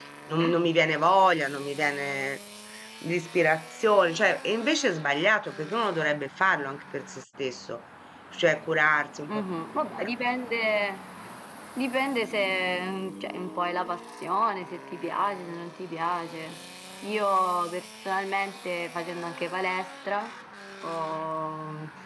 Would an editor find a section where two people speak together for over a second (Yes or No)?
No